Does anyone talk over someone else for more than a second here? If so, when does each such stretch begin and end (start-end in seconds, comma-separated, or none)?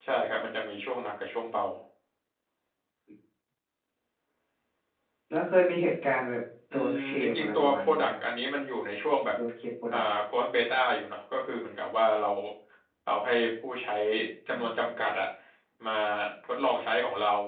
6.7-8.1